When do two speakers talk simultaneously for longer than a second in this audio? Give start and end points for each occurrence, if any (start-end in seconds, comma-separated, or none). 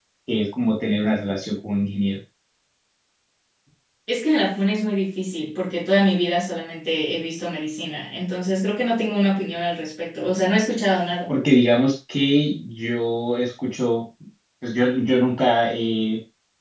none